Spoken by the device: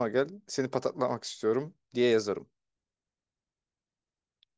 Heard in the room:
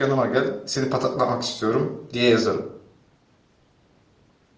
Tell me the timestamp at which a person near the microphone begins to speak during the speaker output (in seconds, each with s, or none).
none